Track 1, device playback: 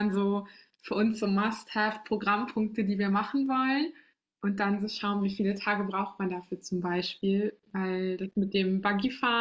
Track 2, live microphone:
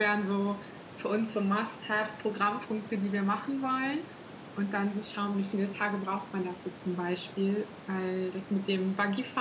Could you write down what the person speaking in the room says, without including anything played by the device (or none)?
none